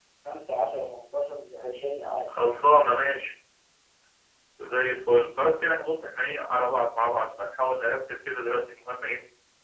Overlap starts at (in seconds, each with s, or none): none